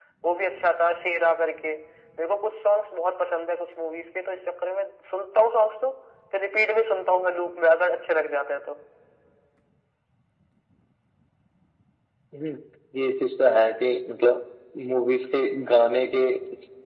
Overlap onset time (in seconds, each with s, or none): none